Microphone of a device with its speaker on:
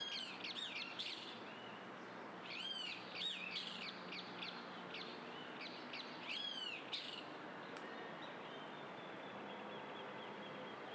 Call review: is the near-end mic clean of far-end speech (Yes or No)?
Yes